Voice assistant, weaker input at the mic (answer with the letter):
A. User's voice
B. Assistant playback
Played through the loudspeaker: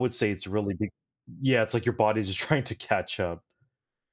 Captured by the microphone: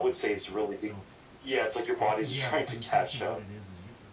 A